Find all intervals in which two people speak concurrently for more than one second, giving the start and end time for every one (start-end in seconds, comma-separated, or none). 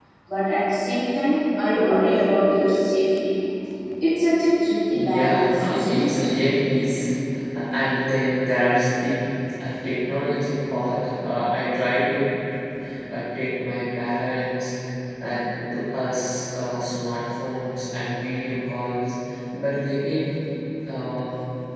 4.9-6.2